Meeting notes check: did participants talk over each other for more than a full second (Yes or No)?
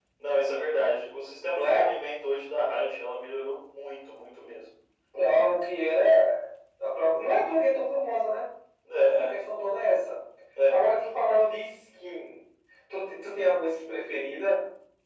No